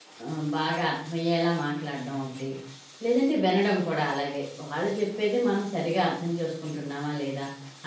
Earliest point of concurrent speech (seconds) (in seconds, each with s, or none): none